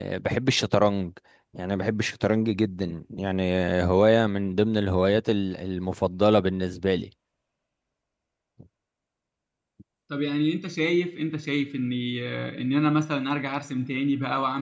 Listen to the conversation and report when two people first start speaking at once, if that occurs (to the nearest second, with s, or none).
none